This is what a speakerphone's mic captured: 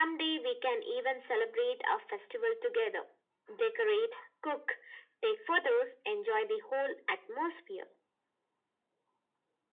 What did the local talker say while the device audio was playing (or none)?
none